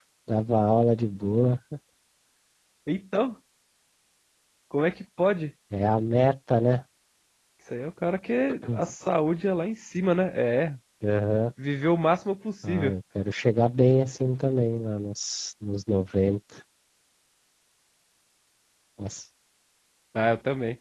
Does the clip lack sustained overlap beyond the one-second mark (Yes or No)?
Yes